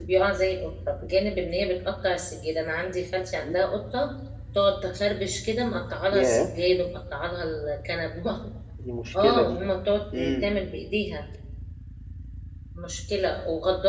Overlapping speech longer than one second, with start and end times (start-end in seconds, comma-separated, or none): none